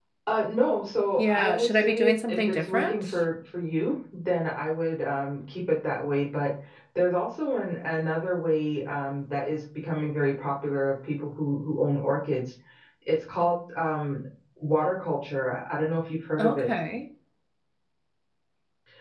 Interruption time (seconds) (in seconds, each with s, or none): 1.2 s